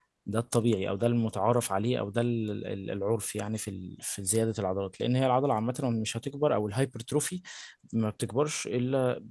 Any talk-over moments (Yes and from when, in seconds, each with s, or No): No